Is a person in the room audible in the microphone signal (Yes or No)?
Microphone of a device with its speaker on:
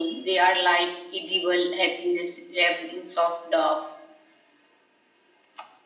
No